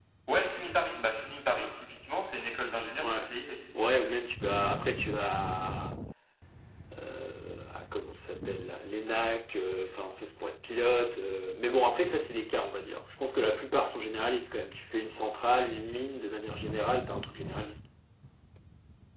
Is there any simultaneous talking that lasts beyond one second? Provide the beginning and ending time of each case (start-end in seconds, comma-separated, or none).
none